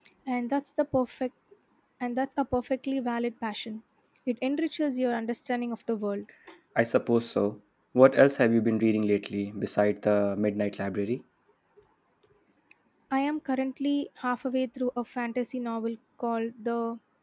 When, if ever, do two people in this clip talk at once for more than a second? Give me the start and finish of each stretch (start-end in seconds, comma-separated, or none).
none